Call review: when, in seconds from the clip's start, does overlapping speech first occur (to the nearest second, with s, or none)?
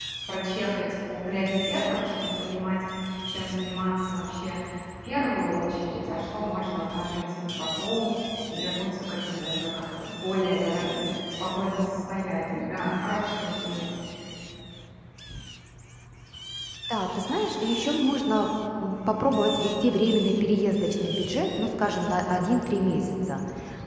none